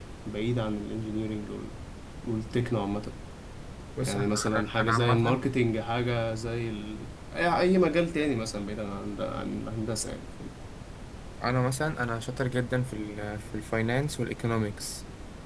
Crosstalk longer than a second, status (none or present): present